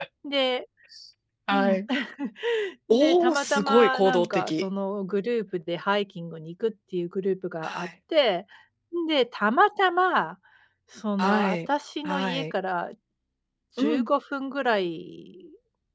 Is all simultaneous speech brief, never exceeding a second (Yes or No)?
No